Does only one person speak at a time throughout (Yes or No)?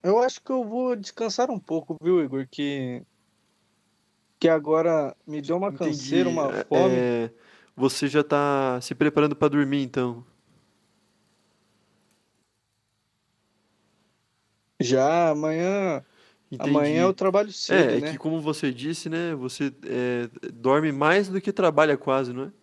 No